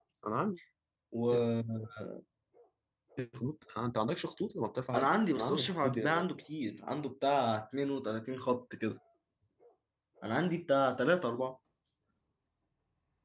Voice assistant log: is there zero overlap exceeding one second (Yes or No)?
No